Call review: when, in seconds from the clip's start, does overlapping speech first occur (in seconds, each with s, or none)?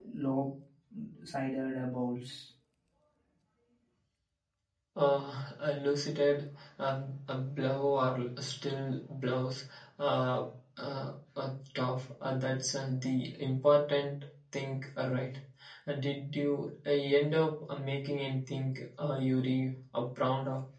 none